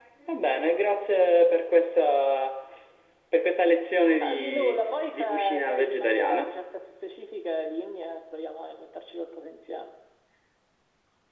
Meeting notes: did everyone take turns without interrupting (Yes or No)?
No